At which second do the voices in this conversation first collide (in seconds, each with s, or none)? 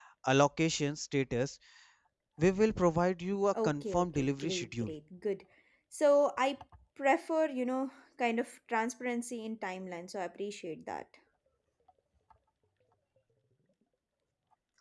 3.6 s